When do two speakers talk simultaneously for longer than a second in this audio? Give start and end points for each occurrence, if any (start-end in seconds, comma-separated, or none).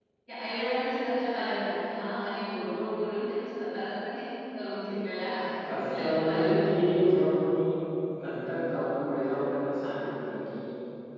5.8-7.0